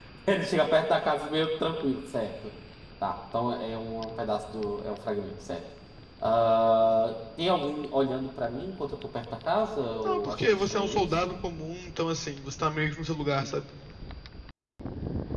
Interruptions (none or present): present